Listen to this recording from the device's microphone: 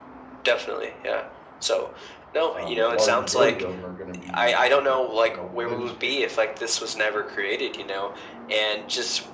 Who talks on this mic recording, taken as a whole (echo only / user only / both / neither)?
both